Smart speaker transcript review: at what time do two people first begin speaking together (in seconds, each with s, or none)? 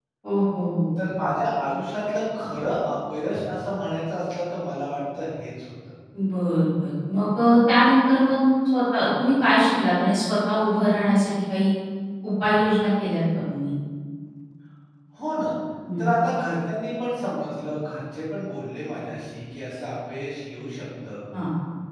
none